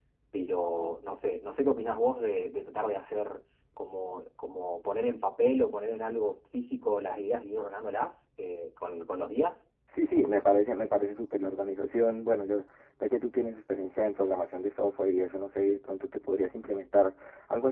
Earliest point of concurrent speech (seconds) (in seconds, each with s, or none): none